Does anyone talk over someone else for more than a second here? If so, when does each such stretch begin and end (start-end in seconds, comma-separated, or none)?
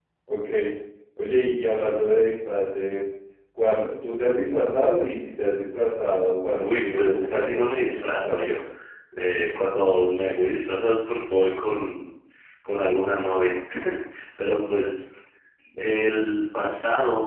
6.6-8.6